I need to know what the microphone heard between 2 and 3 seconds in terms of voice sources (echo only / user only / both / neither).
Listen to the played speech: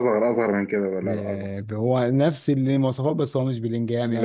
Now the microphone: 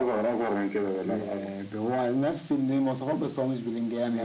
echo only